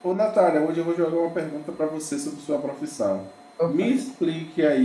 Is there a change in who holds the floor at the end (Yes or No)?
No